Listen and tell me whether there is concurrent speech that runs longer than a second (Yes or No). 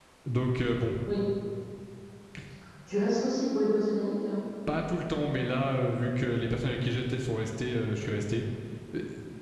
No